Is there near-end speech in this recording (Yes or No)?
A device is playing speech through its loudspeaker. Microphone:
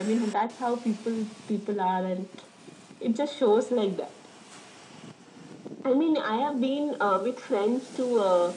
No